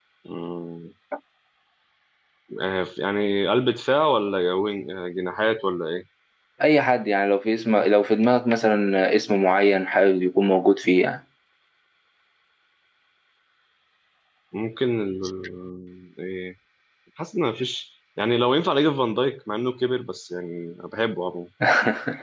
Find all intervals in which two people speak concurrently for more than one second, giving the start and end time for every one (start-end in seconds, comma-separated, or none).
none